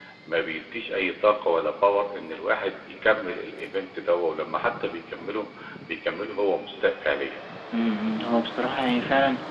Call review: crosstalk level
none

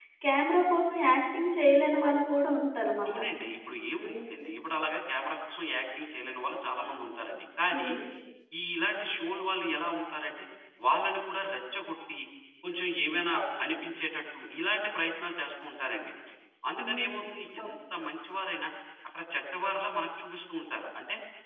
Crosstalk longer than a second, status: none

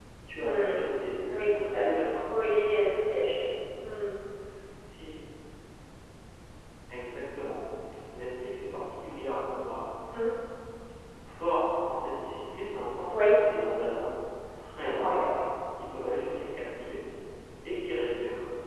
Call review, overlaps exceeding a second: present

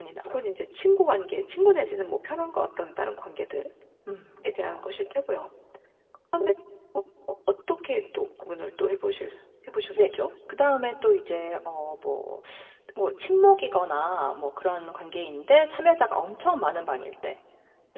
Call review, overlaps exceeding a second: none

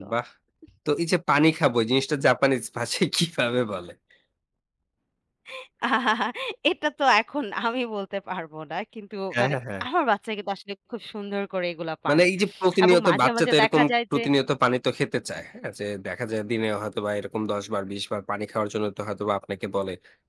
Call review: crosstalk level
present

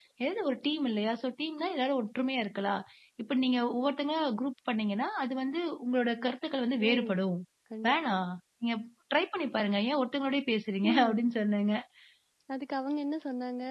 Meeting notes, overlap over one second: none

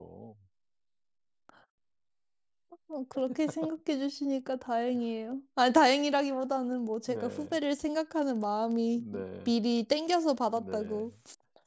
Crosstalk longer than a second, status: none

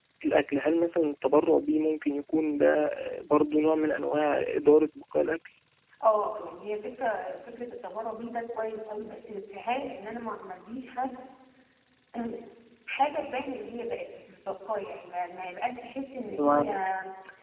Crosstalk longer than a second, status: none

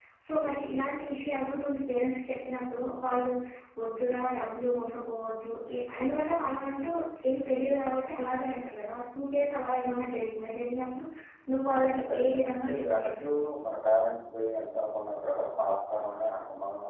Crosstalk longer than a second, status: present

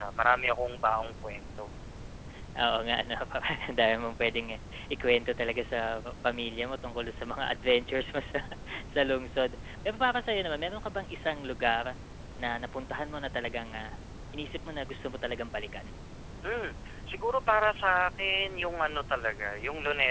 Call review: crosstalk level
none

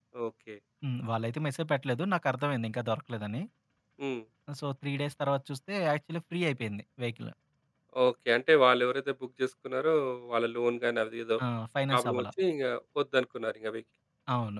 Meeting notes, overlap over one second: none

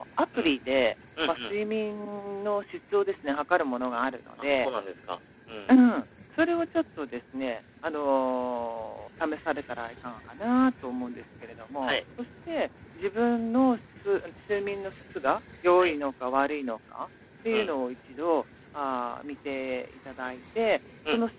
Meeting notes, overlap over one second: none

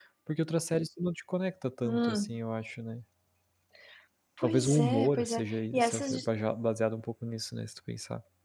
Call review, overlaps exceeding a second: present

